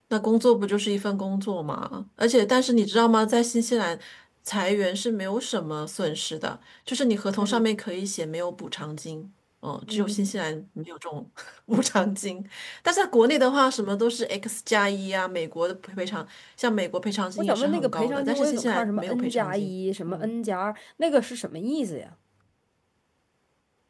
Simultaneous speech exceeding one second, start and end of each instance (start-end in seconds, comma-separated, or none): 17.4-19.7